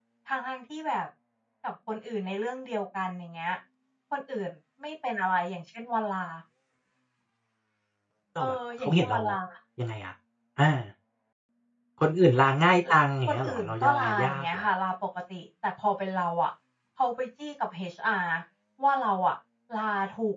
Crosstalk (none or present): present